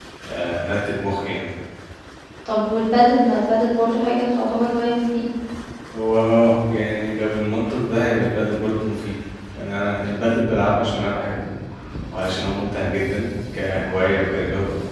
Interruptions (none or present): none